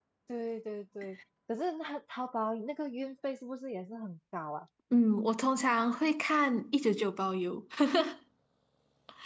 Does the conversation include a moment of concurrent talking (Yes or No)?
No